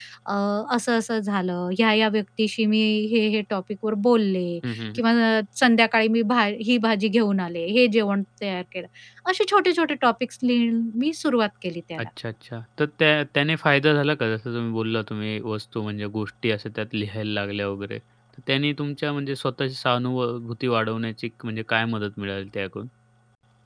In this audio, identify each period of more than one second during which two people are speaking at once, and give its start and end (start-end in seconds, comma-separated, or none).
none